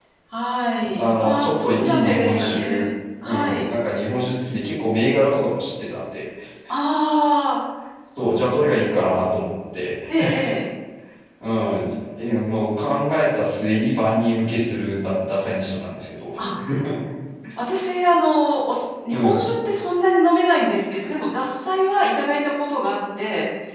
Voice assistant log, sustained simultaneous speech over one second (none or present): present